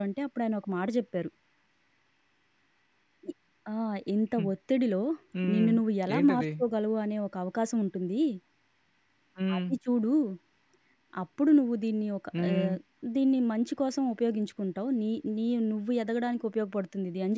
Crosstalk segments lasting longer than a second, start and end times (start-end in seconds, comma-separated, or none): none